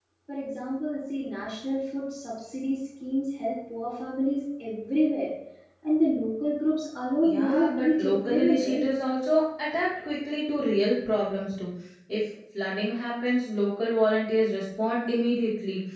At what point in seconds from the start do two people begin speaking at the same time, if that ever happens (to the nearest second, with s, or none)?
7 s